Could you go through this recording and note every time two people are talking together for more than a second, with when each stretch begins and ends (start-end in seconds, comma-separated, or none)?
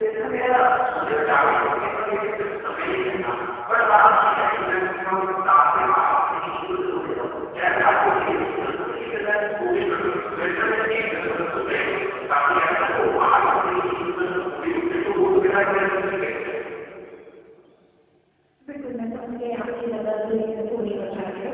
none